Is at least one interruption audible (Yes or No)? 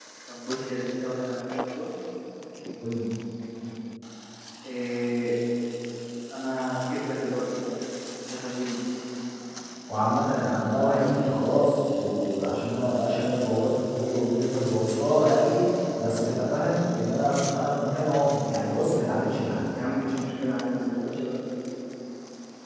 No